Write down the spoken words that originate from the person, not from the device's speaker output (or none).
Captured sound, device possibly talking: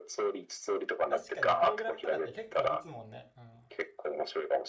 確かにプログラムとかって結構打つもんね。うん。